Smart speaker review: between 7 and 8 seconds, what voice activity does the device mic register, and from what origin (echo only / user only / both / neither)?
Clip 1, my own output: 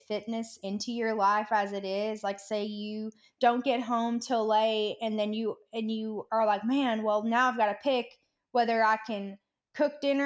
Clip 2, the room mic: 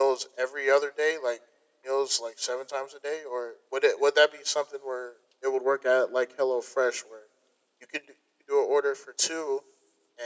user only